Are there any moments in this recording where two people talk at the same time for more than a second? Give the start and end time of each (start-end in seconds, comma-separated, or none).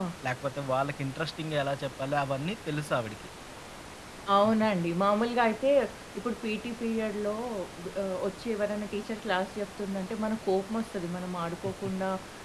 none